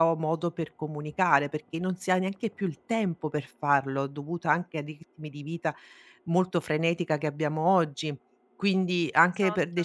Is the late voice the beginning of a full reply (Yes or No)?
No